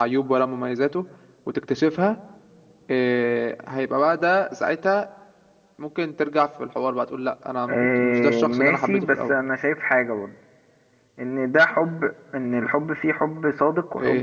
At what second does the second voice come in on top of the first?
7.7 s

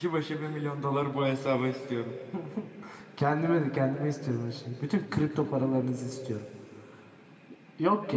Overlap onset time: none

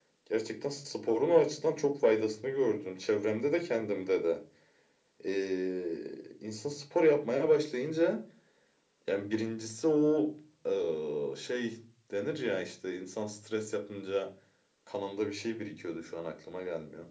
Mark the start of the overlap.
none

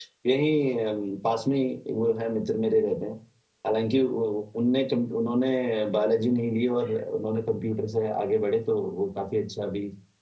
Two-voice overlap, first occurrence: none

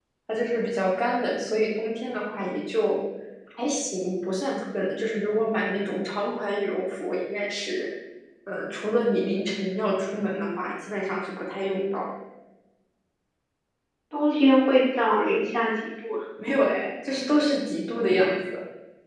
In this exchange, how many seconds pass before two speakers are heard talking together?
none

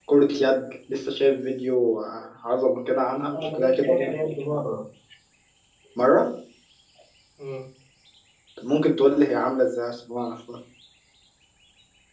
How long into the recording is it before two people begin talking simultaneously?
3.3 s

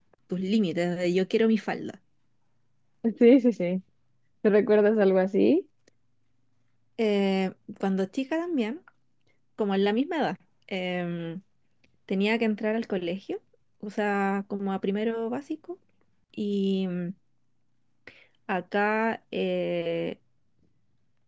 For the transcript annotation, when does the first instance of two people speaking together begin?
none

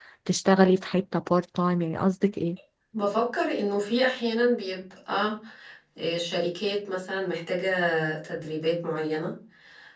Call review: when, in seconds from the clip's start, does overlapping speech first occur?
none

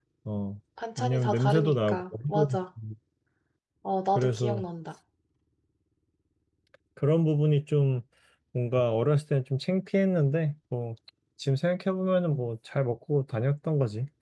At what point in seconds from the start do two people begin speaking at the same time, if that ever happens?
1.0 s

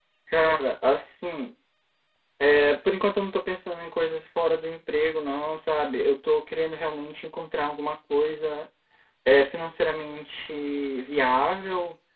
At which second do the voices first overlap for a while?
none

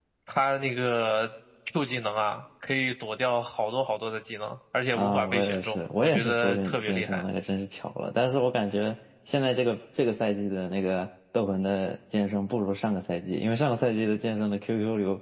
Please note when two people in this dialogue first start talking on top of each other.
4.9 s

